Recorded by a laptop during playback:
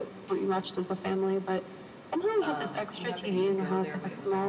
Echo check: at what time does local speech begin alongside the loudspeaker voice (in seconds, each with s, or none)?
2.4 s